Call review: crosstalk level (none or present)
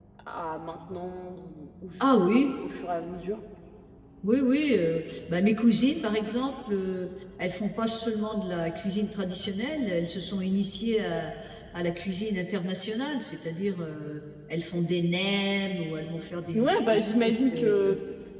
present